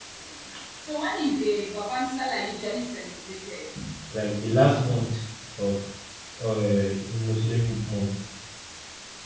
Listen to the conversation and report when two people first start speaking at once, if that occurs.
none

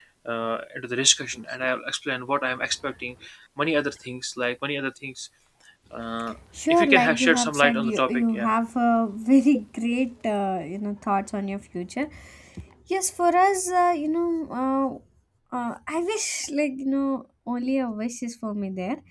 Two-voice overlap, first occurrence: 6.7 s

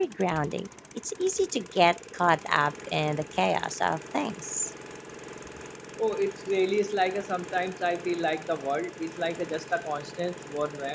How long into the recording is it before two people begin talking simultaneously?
none

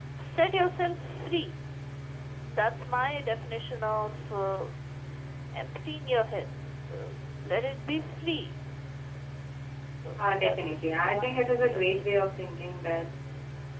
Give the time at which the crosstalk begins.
10.4 s

